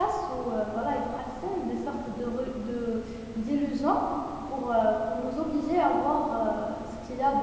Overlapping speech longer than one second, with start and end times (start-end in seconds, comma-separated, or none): none